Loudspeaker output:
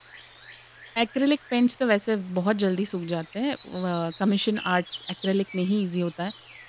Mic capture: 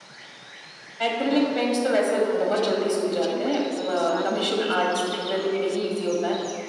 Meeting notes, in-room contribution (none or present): present